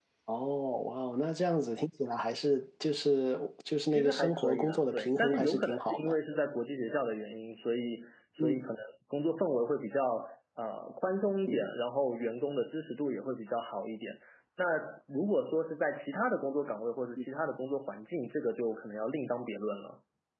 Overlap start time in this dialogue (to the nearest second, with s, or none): 4 s